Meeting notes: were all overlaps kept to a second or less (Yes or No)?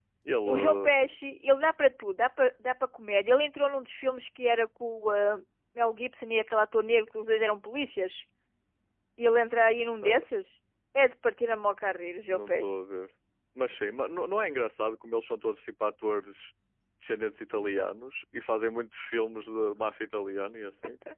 Yes